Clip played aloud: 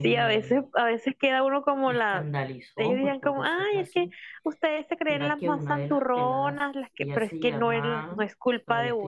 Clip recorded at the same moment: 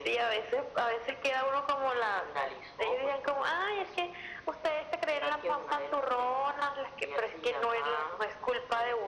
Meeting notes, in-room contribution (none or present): none